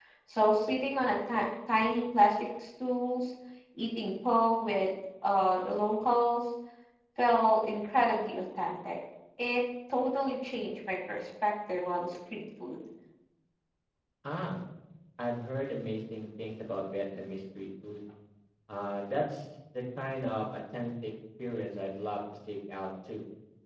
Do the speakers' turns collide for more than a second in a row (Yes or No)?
No